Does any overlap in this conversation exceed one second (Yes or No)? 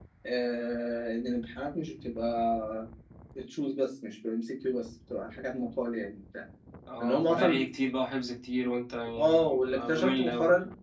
Yes